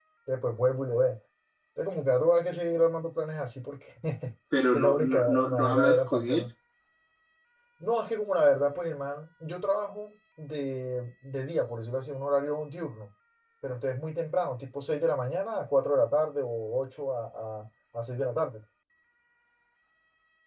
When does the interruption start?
4.7 s

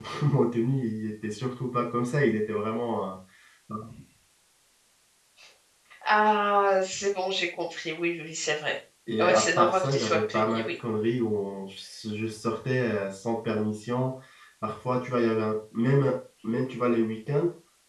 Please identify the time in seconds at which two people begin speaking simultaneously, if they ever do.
9.1 s

